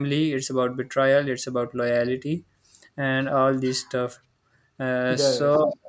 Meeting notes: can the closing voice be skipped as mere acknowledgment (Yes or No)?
Yes